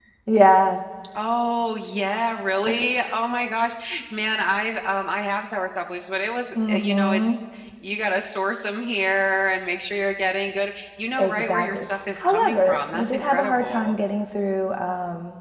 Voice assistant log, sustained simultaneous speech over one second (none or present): present